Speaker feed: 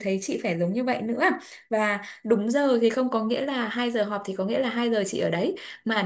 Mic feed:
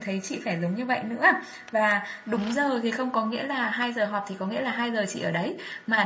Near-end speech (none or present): none